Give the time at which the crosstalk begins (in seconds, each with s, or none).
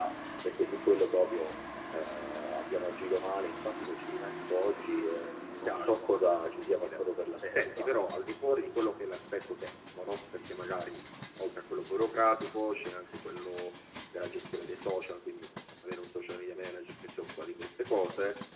5.7 s